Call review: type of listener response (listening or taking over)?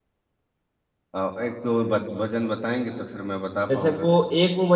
taking over